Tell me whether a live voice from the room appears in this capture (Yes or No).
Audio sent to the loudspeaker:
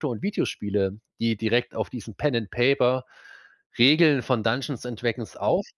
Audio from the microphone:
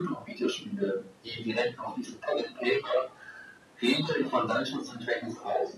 No